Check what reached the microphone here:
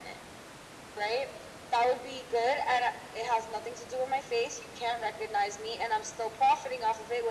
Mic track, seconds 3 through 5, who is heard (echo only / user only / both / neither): echo only